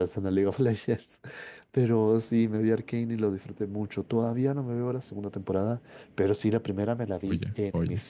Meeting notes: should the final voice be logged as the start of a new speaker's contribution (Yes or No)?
No